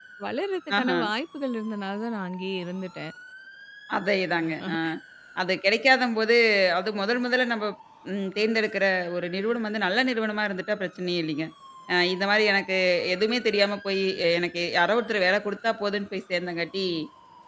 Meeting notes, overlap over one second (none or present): none